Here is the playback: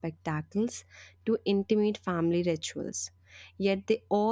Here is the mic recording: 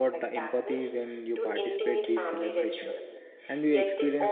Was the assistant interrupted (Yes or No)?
Yes